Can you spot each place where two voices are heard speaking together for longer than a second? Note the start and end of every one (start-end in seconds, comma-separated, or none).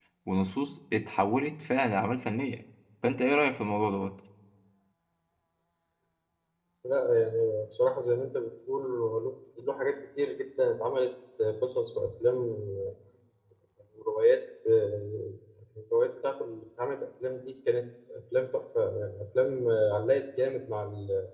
none